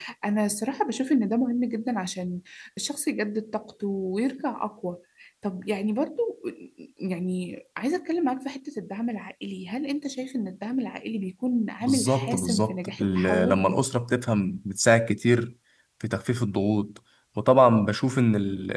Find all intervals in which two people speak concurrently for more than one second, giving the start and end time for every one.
11.8-13.6

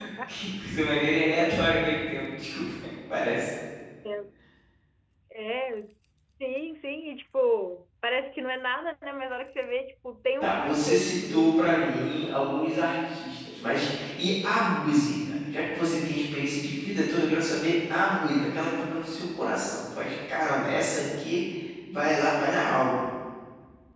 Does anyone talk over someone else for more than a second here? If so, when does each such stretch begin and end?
10.4-12.0

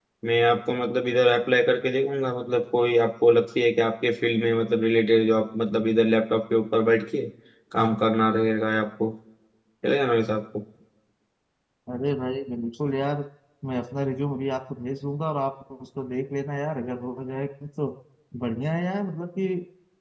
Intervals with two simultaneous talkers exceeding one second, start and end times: none

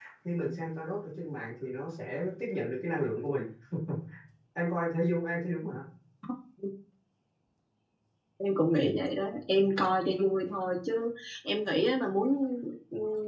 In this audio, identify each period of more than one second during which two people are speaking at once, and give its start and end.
none

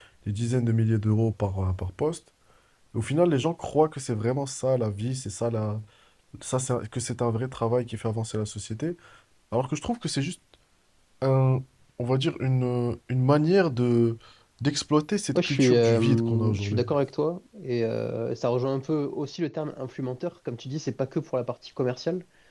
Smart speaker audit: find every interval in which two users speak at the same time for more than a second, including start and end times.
15.4-16.8

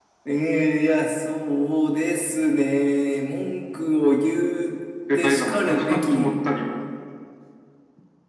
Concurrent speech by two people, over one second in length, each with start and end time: 5.2-6.3

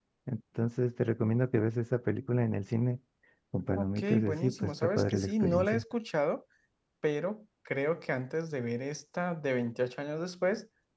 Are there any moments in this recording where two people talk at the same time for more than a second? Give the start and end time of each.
3.8-5.8

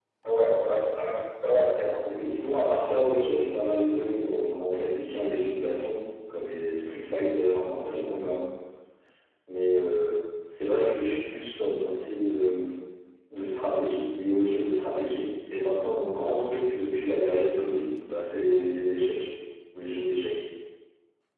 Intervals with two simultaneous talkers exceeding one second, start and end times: none

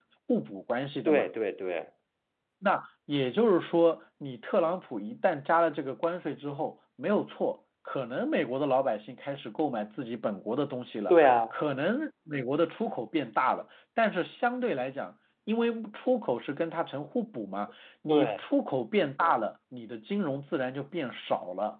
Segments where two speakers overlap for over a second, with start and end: none

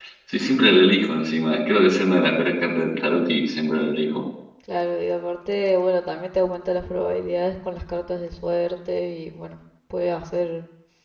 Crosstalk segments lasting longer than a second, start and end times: none

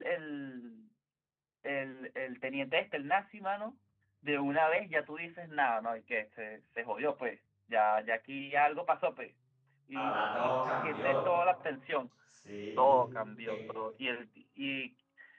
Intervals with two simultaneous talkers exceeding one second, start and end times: 9.9-11.2

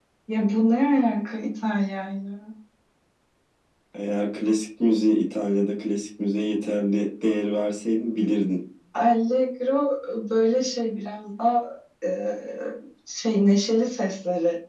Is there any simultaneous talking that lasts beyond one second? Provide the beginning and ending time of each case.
none

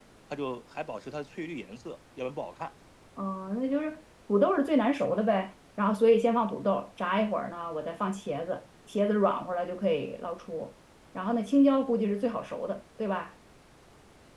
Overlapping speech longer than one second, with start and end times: none

